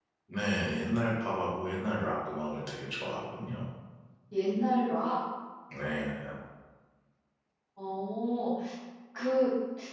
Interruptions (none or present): none